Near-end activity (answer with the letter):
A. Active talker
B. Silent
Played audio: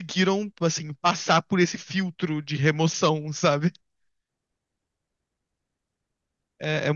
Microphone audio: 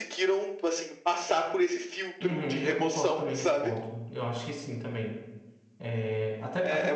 A